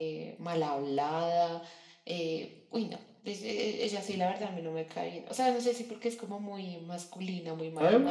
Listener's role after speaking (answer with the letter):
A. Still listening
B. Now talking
B